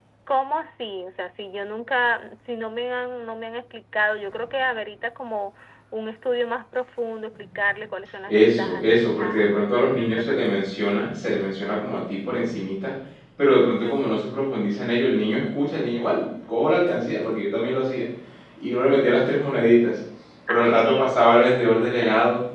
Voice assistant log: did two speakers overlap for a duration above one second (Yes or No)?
Yes